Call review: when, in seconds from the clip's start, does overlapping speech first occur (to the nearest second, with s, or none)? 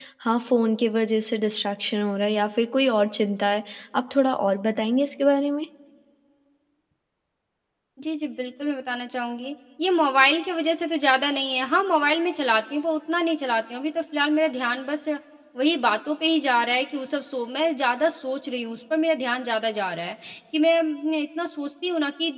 none